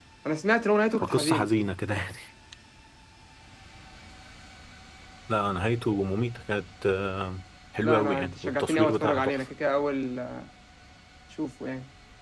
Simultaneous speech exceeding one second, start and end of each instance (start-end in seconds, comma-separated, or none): 7.8-9.4